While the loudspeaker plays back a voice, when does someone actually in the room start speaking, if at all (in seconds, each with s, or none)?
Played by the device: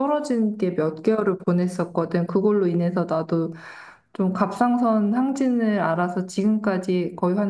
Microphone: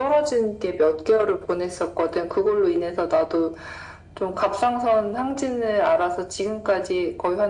none